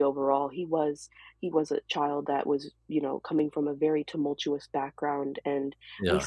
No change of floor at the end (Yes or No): Yes